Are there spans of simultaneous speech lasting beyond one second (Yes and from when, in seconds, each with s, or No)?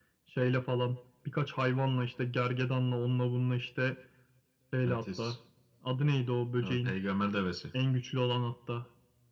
No